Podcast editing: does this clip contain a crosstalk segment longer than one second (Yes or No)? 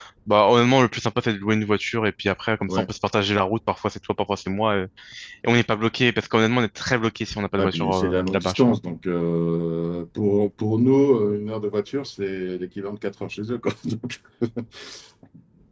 Yes